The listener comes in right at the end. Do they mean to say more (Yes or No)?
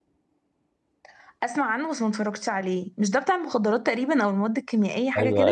Yes